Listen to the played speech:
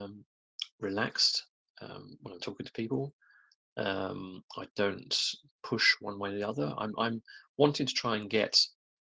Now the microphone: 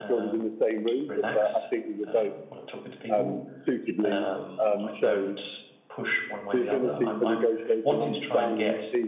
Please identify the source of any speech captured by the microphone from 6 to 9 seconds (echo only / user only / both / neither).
both